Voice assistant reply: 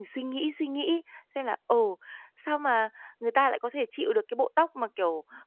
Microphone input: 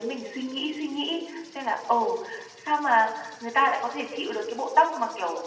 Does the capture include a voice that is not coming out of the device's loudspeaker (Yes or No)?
No